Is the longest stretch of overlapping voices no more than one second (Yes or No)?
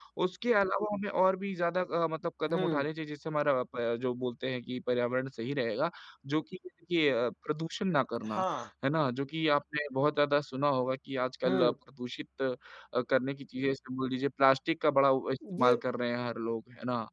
Yes